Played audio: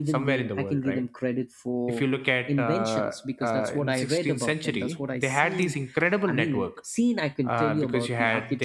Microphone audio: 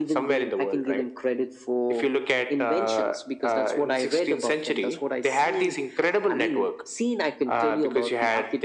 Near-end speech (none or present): none